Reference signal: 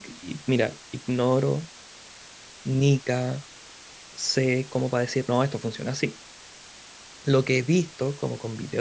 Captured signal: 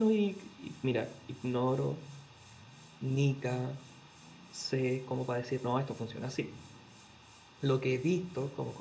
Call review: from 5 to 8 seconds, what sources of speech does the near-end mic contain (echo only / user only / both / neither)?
echo only